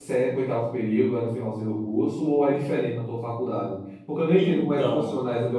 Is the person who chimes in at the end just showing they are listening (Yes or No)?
Yes